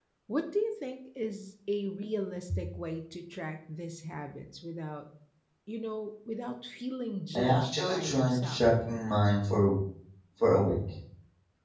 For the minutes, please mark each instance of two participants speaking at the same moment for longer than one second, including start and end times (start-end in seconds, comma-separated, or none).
7.4-8.6